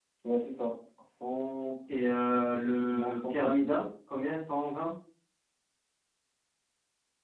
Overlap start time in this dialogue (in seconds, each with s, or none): 2.5 s